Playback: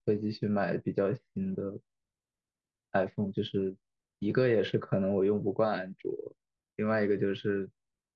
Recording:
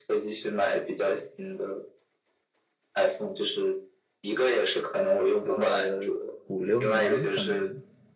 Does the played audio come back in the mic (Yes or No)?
Yes